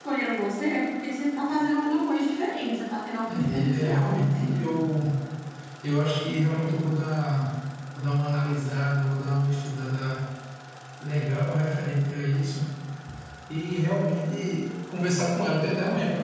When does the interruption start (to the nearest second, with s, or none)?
3 s